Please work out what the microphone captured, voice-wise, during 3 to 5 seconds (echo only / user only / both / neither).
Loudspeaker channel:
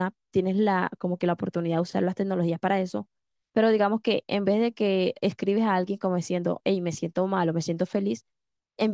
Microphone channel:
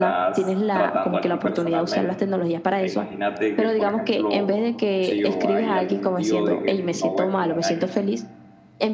both